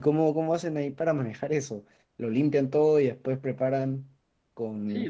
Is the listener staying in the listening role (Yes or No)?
No